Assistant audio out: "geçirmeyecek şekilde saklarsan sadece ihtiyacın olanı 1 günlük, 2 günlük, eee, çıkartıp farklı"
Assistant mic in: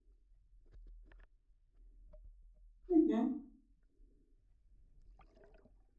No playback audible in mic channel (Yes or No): Yes